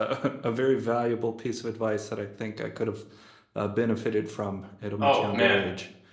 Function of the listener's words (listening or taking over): taking over